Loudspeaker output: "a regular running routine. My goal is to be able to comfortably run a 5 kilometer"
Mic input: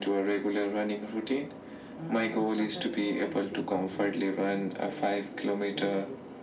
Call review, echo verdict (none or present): present